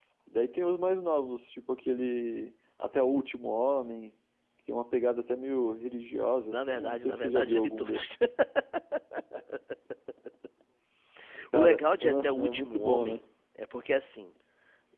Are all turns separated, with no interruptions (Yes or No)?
No